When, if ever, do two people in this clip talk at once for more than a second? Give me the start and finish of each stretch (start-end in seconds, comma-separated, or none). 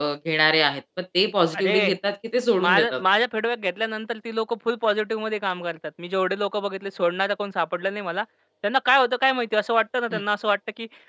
none